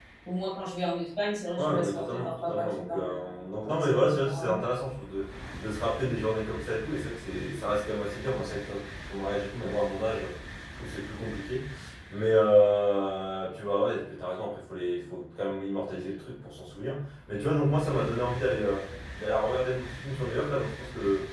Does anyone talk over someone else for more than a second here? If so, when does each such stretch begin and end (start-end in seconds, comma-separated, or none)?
1.6-4.7